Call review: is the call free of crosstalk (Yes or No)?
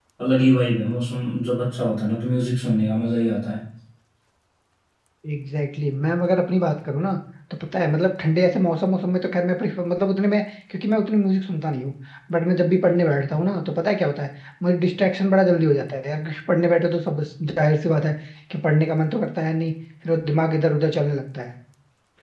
Yes